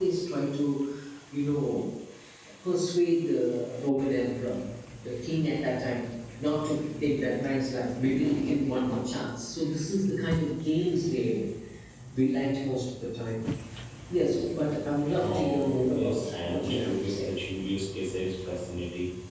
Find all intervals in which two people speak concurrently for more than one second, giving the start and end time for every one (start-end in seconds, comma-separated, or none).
15.3-17.3